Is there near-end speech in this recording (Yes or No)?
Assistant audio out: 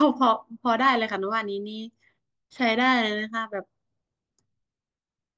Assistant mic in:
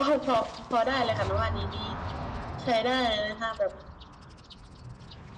No